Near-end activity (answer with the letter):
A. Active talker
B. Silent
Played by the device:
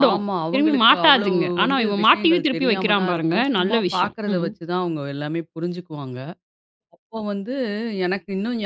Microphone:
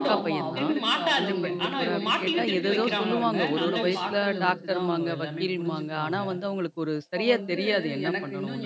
A